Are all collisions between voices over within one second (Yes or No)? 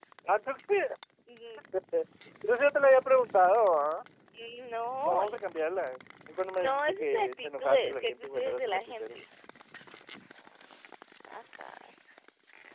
No